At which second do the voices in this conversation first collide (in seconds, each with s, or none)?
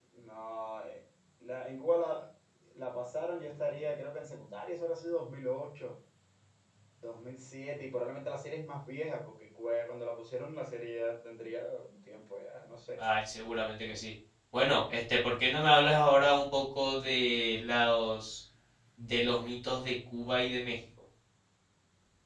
none